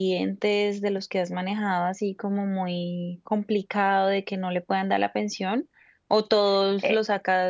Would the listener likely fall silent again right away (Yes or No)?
Yes